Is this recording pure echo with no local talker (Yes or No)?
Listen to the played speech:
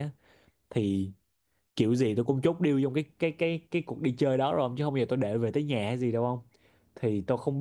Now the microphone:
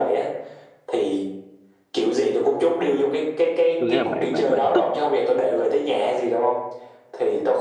No